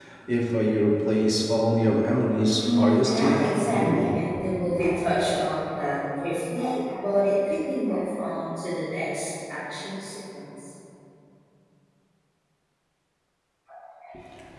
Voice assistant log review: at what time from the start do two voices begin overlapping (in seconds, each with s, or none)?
2.6 s